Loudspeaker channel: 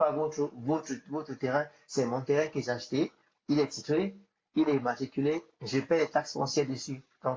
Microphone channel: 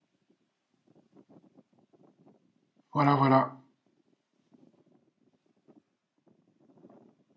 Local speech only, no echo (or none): Voilà, voilà.